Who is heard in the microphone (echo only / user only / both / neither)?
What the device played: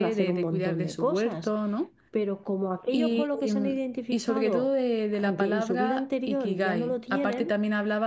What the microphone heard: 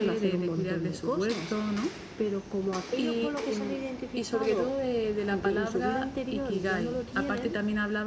echo only